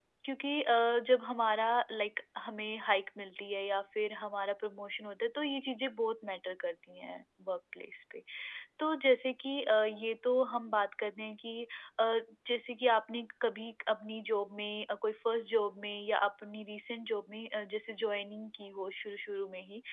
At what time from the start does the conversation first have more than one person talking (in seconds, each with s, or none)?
none